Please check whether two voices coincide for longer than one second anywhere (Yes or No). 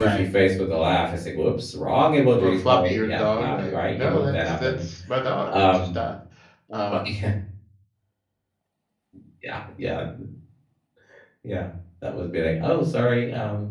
Yes